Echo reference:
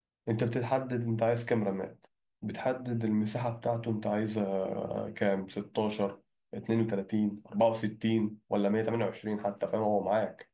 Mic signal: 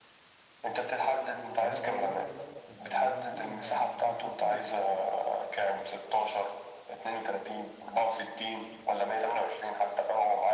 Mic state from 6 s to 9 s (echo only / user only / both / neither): echo only